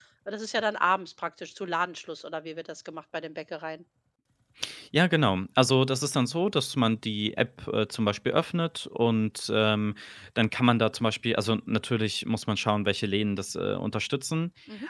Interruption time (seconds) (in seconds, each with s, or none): none